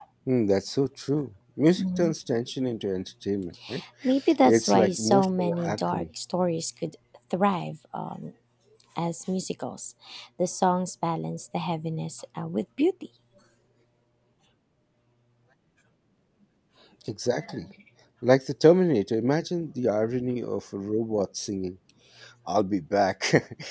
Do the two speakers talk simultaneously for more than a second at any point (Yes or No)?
Yes